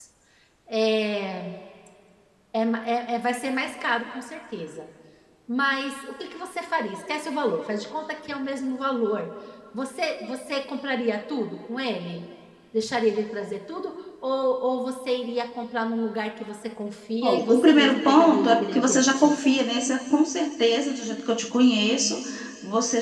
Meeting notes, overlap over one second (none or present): present